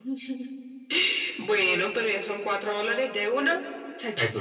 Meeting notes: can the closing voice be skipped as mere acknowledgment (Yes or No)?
No